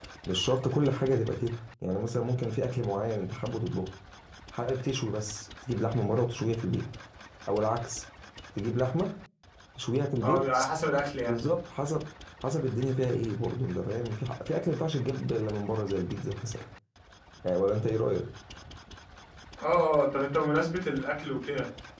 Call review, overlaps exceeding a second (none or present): none